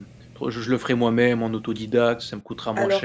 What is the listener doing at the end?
taking over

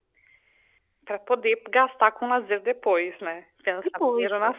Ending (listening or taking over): taking over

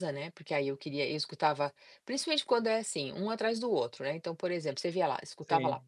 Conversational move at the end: listening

